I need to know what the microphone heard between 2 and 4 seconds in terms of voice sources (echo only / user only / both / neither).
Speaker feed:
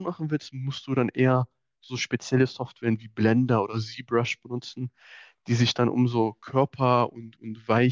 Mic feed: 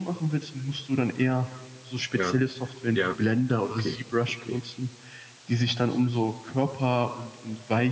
both